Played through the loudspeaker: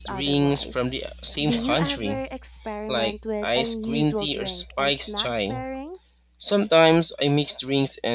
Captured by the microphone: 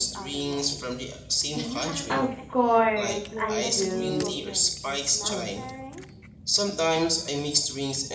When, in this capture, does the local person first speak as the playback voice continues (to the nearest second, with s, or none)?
2 s